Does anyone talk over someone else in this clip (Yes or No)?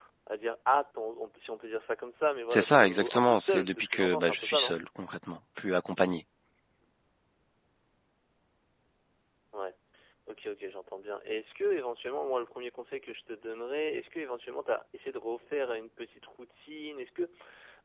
Yes